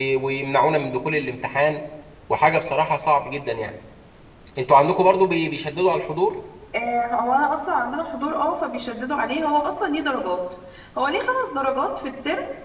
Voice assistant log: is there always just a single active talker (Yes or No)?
Yes